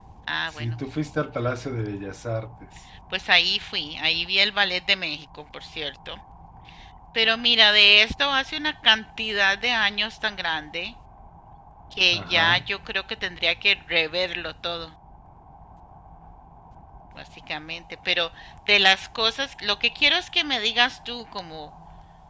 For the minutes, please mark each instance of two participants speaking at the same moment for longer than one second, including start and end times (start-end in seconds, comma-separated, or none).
none